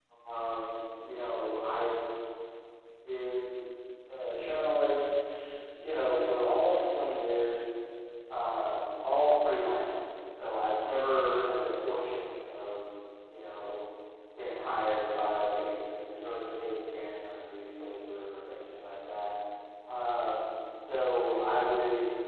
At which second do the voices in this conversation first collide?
none

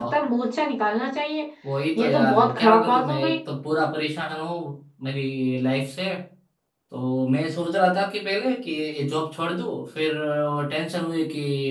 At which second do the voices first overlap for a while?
2.0 s

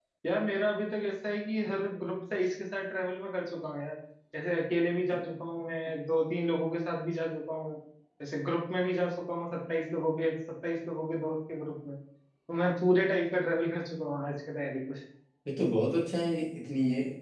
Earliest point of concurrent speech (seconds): none

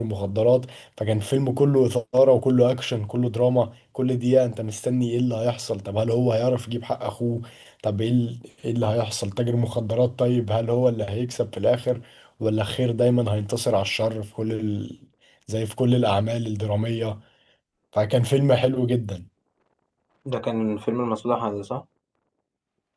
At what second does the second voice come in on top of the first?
none

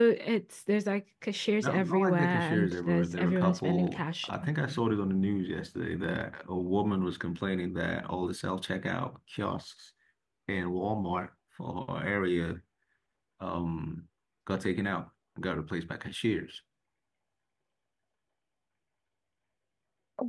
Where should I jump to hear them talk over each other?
1.6 s

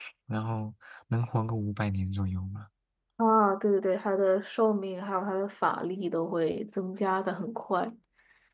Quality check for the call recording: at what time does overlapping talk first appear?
none

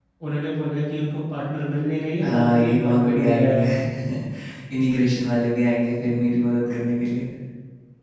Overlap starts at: 2.2 s

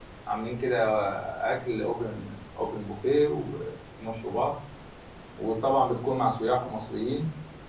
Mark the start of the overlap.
none

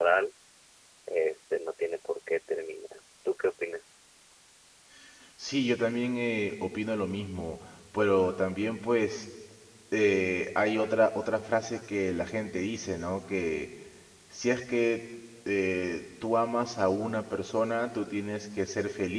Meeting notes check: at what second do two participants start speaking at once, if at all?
none

